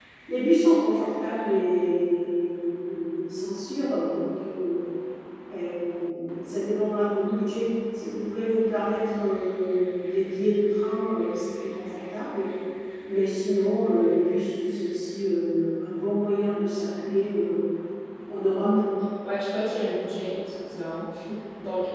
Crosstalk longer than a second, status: none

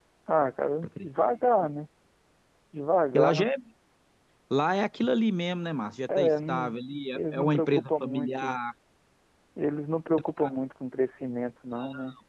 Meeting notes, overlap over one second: present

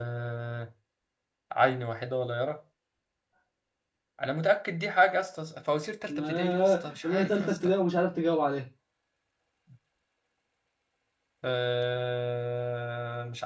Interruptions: present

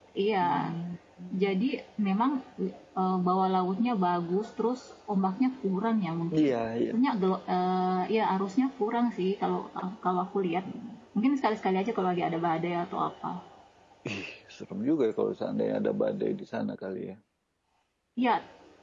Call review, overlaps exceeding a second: none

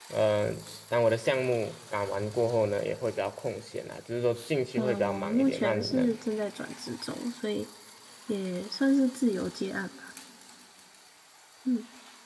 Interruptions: present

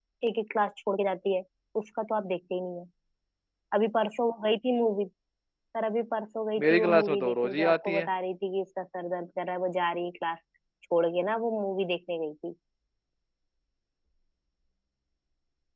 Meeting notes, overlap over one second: present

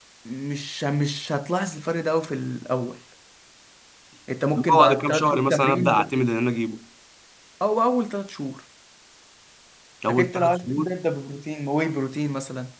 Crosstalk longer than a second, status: present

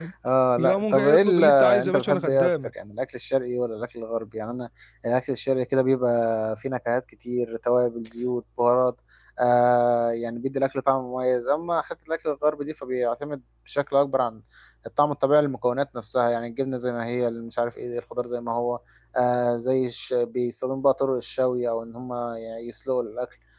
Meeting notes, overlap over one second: present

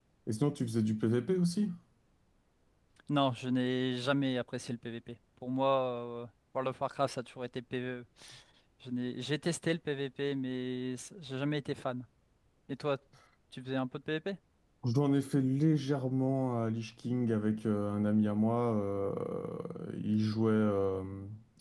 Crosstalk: none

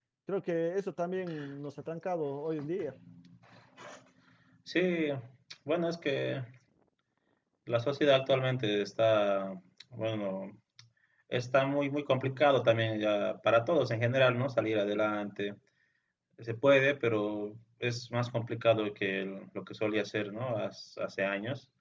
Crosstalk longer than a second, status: none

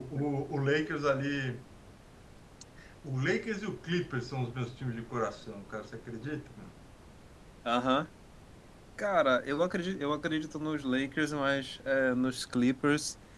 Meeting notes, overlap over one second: none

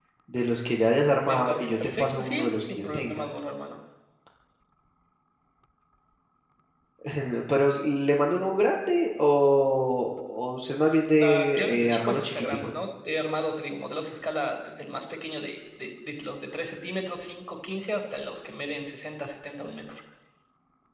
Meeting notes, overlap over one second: present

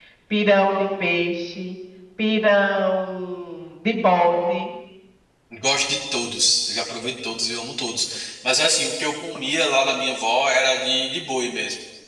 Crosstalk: none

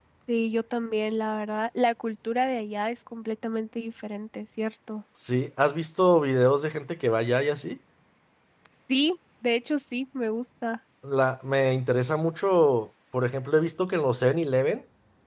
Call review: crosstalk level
none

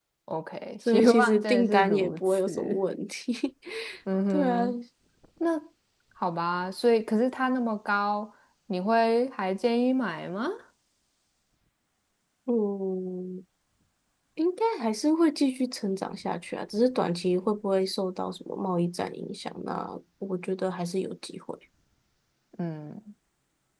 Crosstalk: present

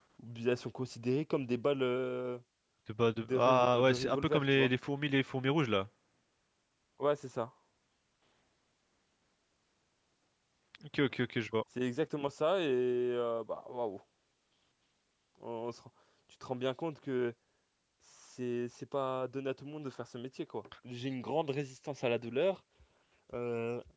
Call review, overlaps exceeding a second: present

